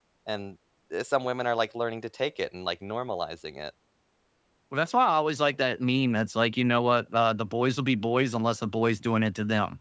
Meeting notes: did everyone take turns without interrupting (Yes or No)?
Yes